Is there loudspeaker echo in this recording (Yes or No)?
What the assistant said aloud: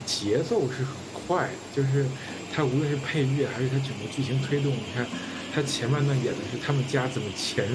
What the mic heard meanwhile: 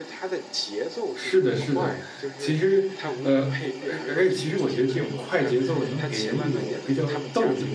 Yes